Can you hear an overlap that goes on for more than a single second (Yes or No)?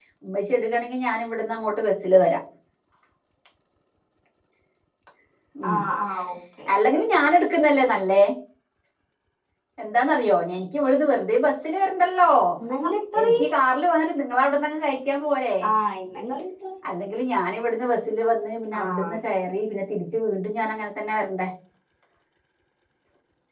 No